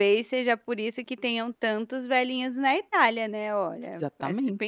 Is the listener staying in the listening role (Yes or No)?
No